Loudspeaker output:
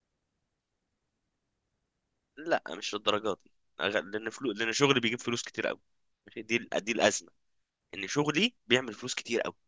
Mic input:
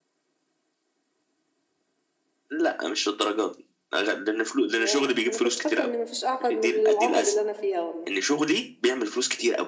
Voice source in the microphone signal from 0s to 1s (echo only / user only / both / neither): neither